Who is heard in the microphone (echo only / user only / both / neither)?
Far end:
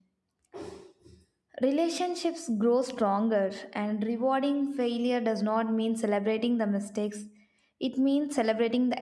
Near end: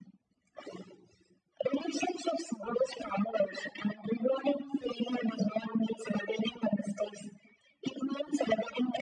echo only